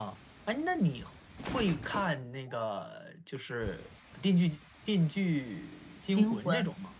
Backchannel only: No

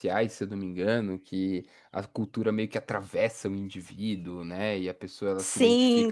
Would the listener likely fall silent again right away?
No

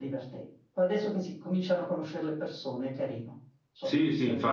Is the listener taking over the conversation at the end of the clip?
Yes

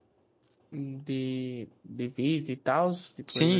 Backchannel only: No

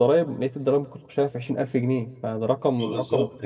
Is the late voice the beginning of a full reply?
Yes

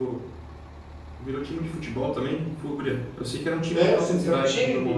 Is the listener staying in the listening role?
No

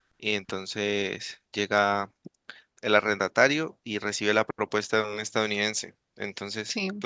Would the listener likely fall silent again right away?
Yes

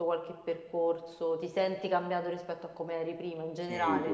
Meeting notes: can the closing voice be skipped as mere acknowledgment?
No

